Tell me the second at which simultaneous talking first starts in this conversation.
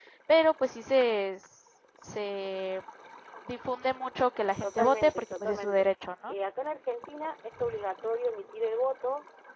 5 s

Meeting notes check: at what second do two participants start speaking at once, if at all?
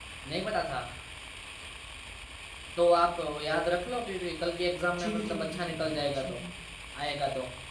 5 s

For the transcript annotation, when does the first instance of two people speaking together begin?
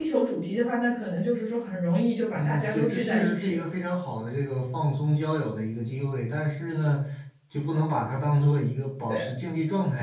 2 s

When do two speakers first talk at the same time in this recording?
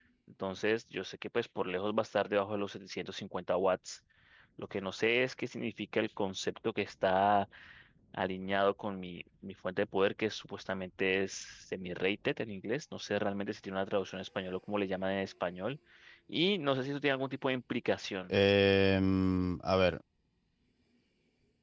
none

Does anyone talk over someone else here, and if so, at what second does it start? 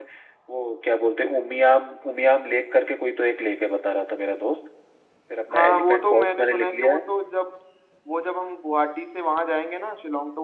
6 s

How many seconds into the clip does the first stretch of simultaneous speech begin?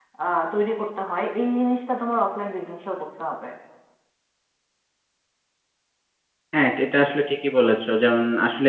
none

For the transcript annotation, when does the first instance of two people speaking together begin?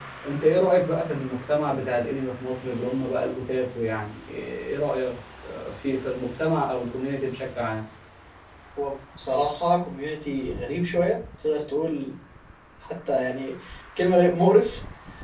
none

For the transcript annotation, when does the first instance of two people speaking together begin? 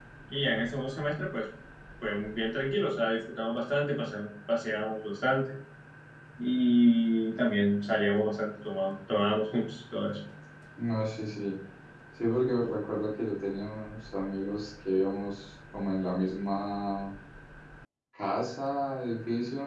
none

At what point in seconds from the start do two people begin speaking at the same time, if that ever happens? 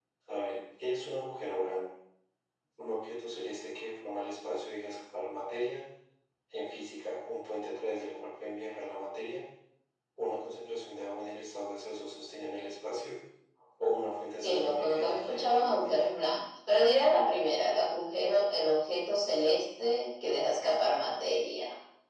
14 s

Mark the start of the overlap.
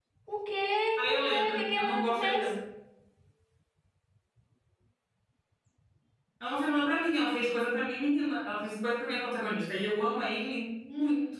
1 s

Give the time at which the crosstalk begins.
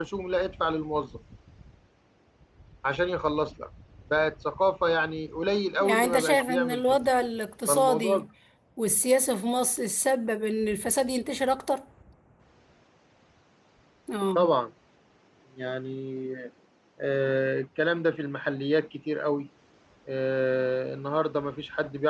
6 s

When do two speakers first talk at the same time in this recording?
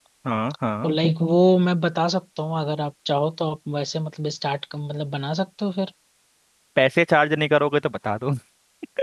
none

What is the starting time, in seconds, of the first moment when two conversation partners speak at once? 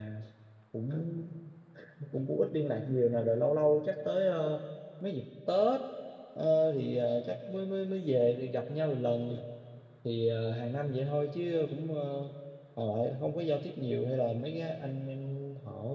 none

